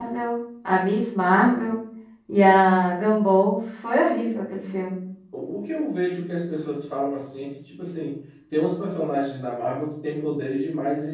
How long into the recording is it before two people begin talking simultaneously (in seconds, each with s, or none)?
none